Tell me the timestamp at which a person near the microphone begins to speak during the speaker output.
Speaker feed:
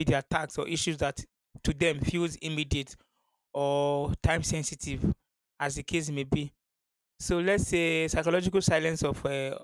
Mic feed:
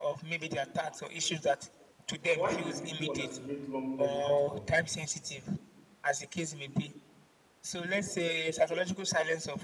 2 s

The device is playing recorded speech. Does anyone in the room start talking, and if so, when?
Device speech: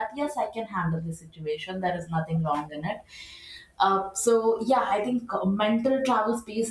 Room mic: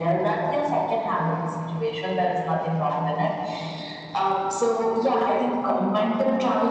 none

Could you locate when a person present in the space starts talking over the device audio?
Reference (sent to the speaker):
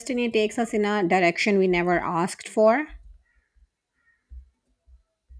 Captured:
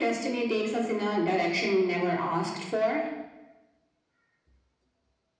none

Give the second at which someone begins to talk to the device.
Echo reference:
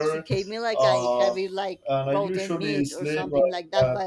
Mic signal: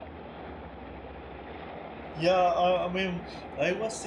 2 s

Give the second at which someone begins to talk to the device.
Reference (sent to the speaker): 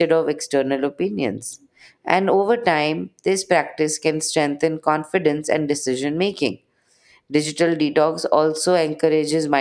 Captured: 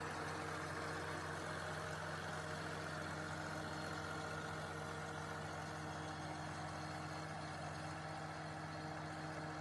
none

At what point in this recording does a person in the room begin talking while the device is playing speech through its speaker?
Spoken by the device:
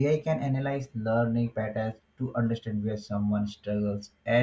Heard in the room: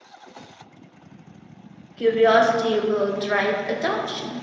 2 s

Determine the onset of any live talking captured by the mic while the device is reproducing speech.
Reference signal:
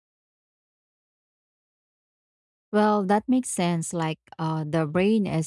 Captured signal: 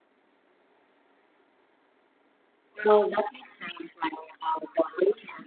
none

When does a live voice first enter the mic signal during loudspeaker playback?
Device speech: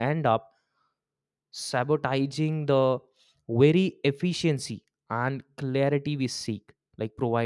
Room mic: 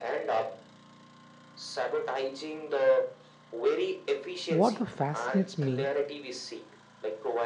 4 s

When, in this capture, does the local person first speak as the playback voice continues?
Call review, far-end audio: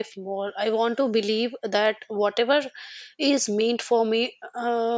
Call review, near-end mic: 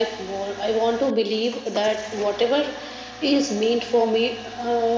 none

